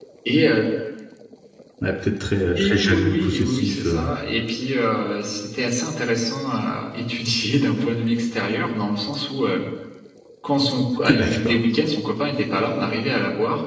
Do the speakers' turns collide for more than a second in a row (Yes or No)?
Yes